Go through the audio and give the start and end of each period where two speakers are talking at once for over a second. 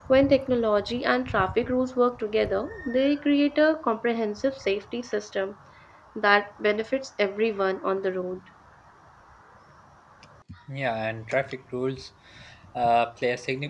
none

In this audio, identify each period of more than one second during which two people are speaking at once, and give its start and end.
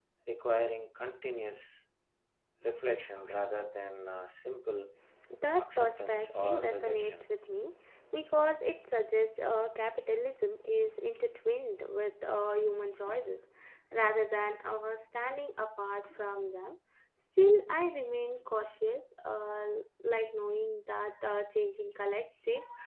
5.6-7.3

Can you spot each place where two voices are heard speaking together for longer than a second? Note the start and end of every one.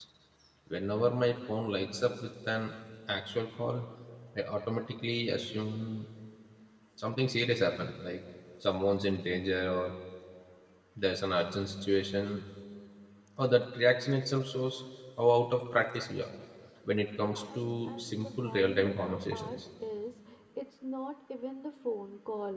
17.2-19.5

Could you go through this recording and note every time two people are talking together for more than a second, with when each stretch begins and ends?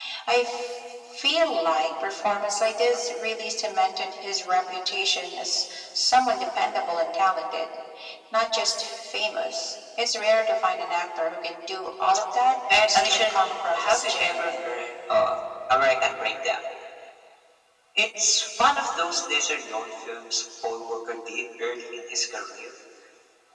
12.7-14.7

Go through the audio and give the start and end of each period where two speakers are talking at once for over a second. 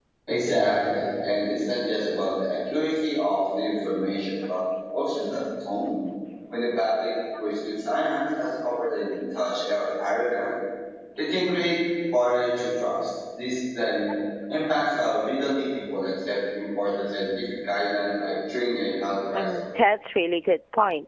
none

